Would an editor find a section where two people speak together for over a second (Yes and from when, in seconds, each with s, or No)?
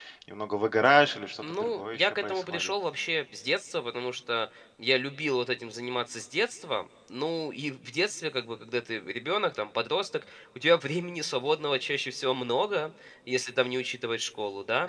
Yes, from 1.4 s